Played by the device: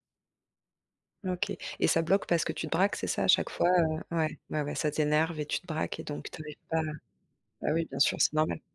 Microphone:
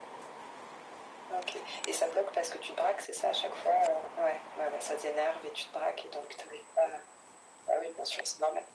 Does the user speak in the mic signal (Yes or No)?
No